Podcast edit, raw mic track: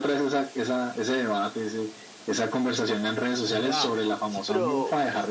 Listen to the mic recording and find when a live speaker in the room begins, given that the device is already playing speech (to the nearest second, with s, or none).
3 s